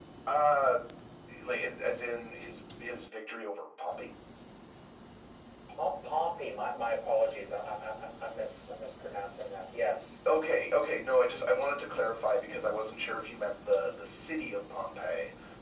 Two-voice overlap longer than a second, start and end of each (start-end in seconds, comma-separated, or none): none